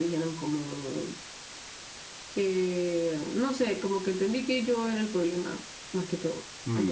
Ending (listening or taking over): taking over